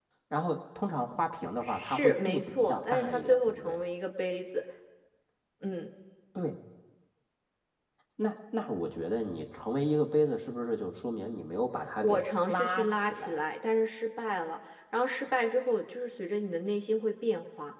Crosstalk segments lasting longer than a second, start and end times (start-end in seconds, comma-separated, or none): 1.6-3.8, 12.0-13.4